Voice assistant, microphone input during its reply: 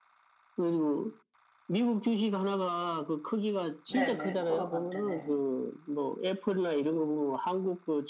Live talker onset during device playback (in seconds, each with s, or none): 3.9 s